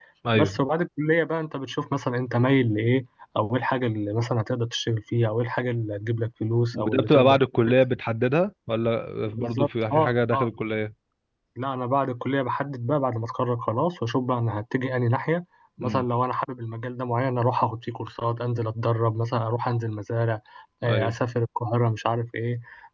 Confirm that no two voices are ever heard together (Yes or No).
No